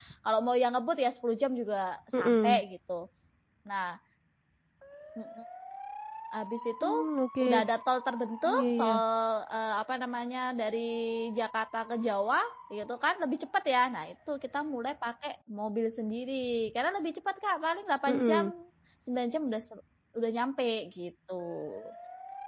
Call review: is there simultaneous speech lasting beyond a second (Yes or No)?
No